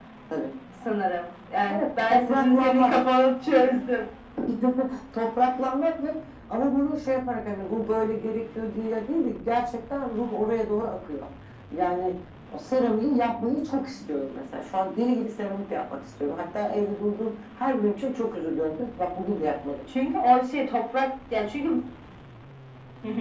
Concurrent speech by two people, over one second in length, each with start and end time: 1.7-2.9

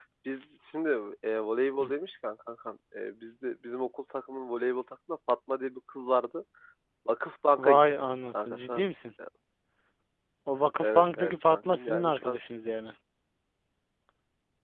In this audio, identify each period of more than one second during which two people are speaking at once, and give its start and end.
7.6-8.9, 10.8-12.4

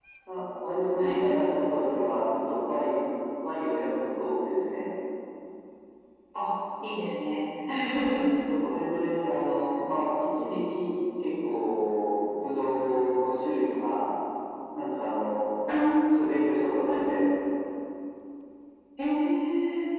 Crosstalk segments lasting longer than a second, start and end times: none

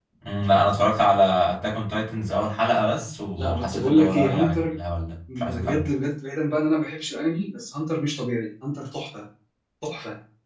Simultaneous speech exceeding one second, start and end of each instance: 3.4-4.8

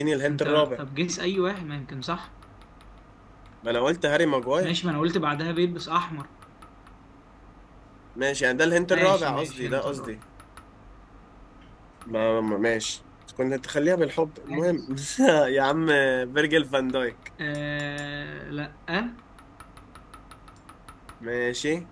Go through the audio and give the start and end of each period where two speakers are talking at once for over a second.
8.9-10.1

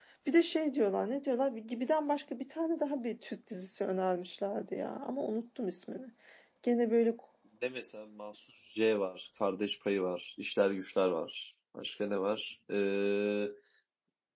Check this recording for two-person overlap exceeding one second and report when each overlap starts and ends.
none

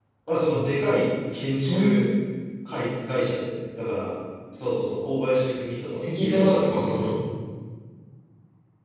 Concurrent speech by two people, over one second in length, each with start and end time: 5.9-7.1

